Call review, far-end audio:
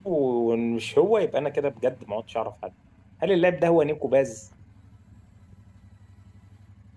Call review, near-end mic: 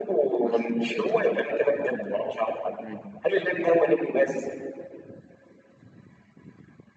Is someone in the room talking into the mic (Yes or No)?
Yes